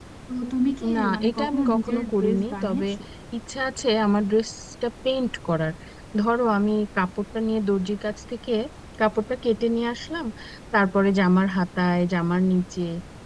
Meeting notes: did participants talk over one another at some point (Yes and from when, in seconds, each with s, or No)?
Yes, from 0.9 s